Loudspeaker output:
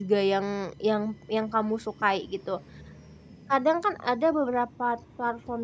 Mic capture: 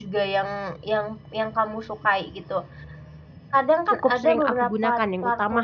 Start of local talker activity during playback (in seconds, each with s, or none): 3.9 s